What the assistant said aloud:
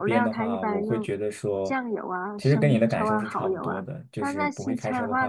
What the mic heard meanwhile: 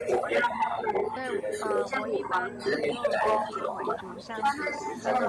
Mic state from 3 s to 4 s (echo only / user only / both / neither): both